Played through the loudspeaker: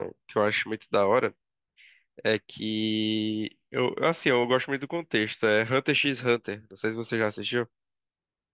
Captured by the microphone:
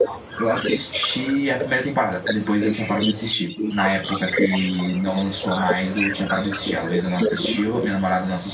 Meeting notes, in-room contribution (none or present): present